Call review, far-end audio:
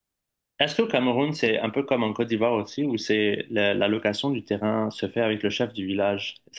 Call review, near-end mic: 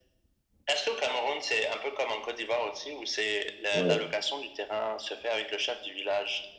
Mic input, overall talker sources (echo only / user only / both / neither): both